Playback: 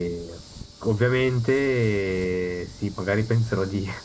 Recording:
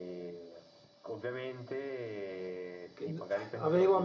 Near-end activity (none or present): present